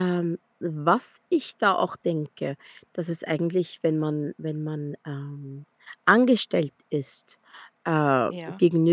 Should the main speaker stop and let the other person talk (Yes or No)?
No